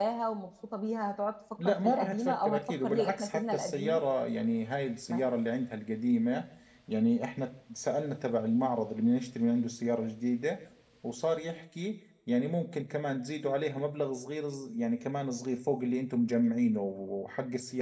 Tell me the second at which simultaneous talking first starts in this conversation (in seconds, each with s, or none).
1.6 s